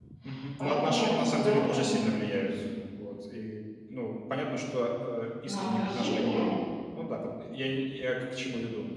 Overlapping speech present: Yes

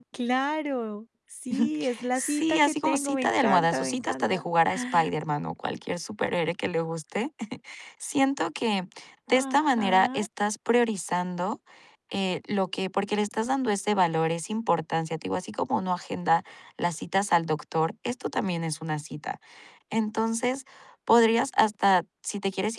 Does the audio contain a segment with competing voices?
Yes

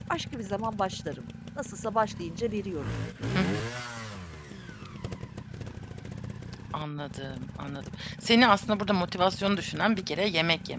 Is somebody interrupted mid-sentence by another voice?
No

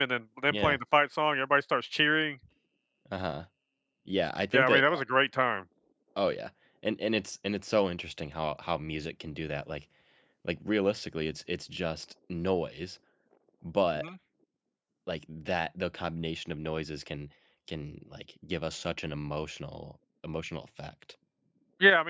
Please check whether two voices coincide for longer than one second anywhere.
No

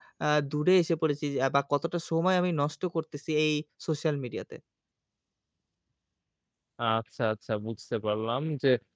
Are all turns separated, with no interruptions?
Yes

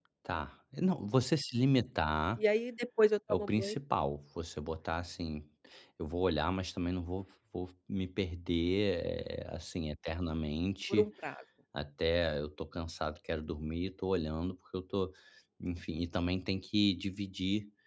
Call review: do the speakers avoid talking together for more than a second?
Yes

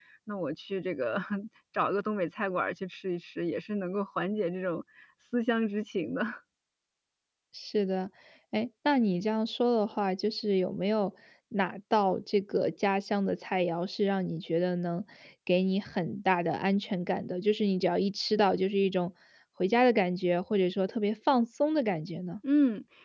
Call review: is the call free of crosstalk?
Yes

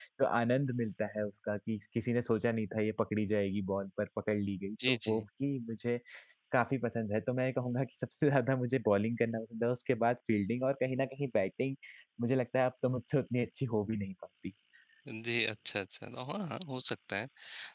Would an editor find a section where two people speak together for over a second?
No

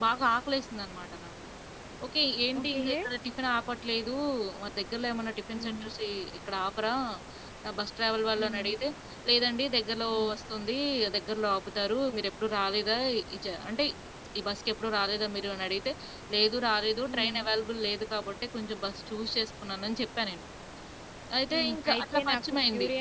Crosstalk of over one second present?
Yes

